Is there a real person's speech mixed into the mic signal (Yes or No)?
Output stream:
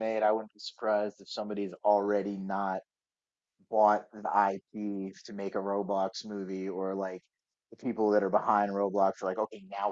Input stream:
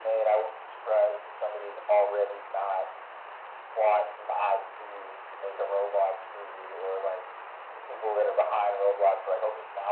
No